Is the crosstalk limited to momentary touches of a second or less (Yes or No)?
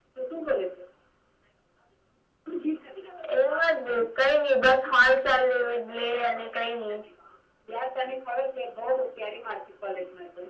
Yes